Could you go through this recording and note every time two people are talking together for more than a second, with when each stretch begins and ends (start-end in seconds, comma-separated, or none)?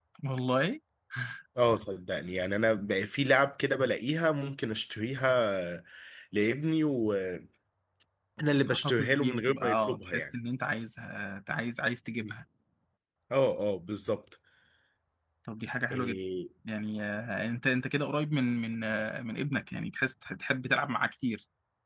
8.7-10.3